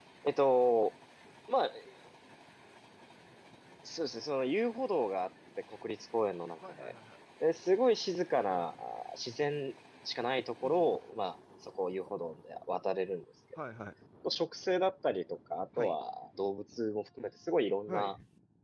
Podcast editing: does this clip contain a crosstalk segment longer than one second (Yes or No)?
No